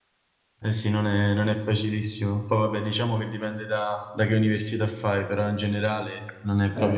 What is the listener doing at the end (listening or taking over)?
taking over